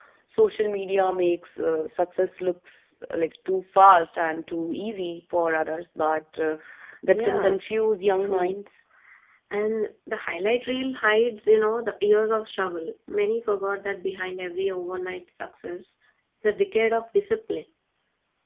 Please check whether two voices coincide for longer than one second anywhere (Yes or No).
No